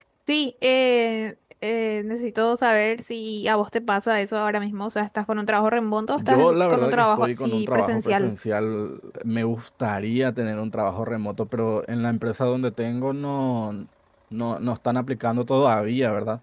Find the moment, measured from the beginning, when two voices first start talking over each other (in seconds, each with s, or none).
6.2 s